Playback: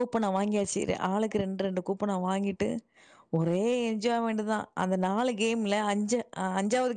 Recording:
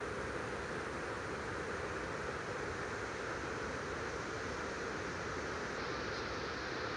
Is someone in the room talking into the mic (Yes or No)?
No